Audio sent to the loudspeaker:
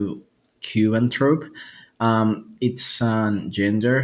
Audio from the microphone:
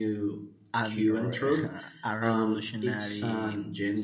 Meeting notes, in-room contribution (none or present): present